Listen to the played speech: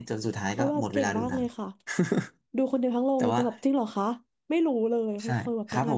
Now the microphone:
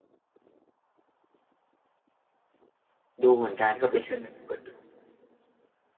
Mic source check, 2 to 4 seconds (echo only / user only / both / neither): user only